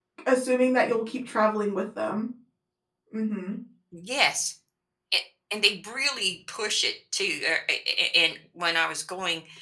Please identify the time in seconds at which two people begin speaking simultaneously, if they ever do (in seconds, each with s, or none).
none